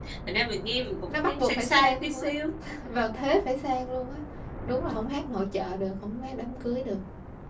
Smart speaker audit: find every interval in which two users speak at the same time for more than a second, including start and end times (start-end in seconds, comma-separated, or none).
1.1-2.3